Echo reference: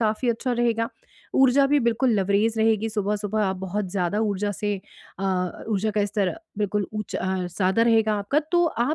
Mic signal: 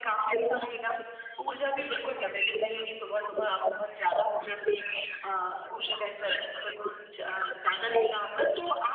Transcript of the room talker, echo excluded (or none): none